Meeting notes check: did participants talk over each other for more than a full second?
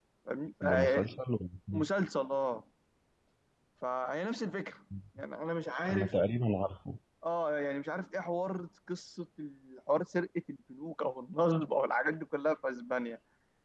No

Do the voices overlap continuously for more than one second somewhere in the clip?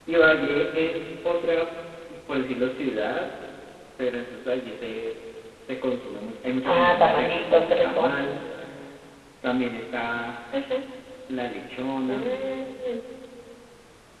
Yes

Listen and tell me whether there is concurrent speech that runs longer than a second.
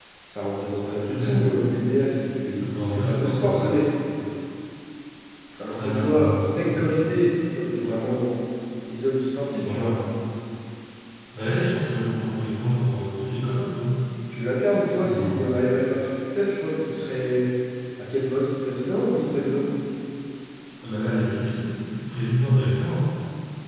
Yes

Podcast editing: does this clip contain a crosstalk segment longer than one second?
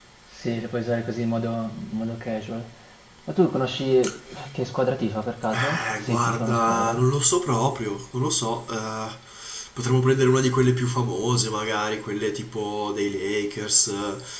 Yes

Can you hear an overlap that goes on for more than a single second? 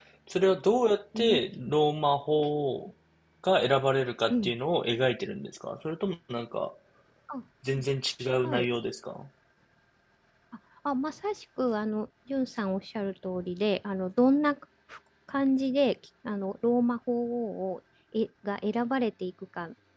No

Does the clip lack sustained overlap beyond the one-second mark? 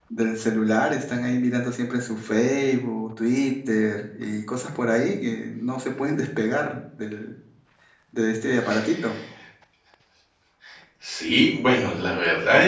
Yes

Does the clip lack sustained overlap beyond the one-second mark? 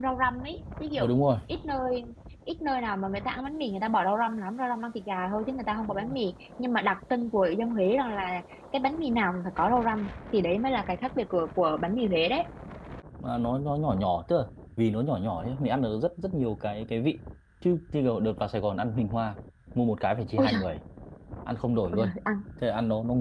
Yes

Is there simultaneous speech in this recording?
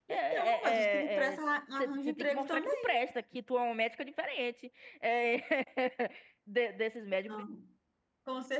Yes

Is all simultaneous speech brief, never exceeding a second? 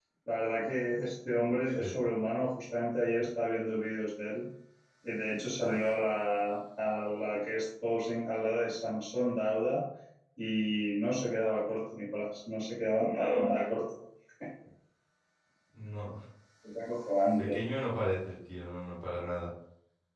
Yes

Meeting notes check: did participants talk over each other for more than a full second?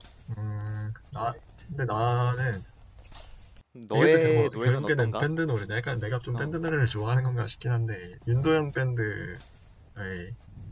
Yes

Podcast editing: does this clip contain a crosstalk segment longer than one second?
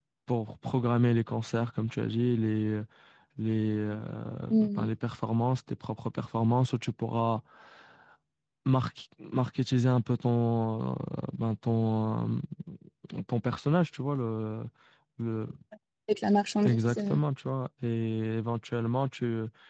No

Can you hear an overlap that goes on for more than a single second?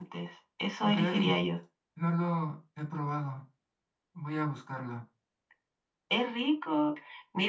No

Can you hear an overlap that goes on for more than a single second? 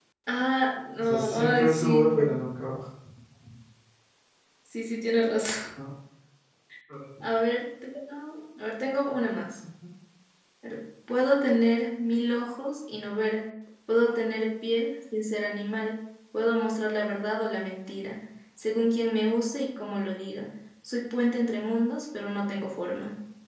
Yes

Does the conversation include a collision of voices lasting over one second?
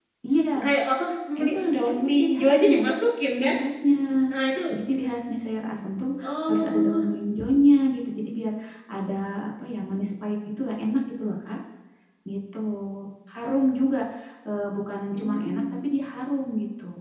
Yes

